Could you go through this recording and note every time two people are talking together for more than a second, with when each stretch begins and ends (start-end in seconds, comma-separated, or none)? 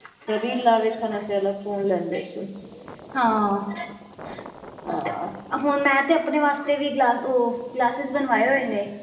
none